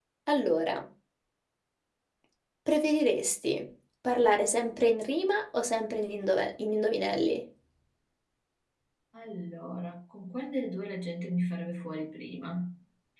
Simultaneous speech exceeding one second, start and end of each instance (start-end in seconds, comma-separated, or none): none